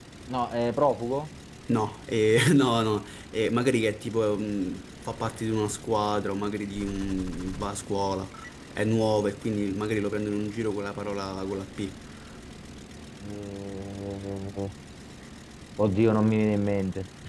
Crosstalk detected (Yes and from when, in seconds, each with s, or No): No